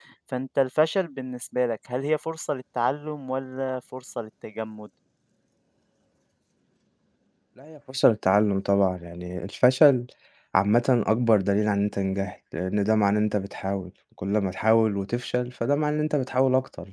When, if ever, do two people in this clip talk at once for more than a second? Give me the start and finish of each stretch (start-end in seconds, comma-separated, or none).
none